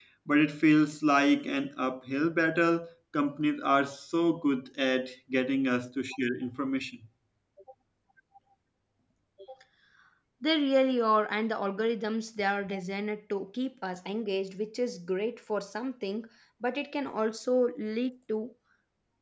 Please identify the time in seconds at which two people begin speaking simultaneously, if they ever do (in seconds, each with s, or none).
none